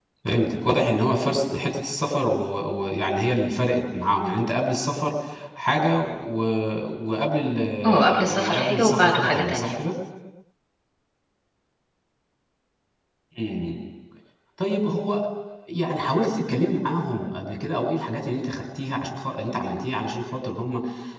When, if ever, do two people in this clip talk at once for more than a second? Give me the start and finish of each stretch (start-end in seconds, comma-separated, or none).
7.9-9.7